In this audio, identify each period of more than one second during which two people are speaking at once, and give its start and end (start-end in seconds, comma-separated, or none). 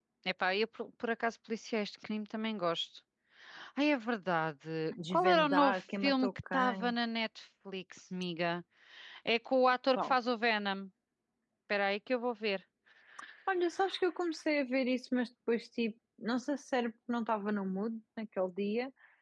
5.1-6.9